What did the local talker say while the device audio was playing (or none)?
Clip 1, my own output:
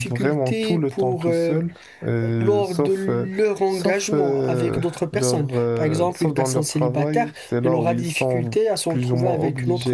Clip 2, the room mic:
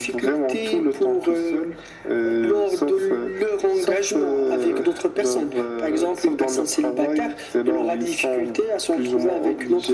none